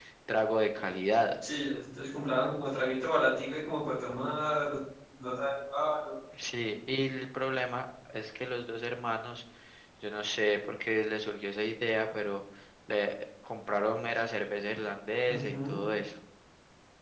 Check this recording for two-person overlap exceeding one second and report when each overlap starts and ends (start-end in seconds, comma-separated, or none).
none